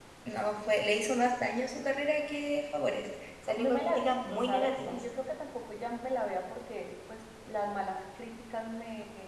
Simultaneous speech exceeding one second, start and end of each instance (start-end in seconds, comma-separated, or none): 3.6-5.0